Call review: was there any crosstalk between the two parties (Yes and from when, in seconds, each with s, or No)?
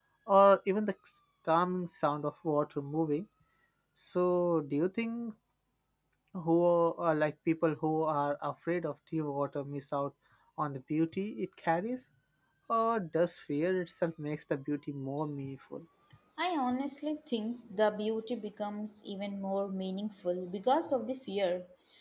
No